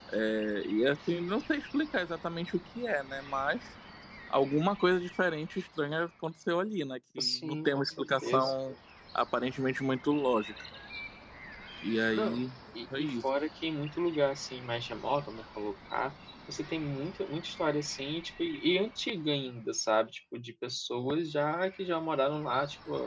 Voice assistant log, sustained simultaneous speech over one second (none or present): present